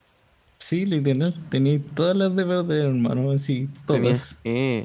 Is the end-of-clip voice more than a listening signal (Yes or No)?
Yes